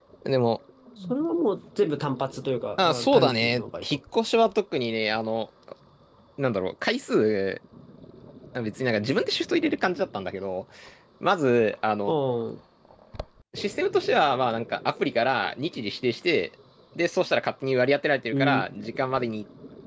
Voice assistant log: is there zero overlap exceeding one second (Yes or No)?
No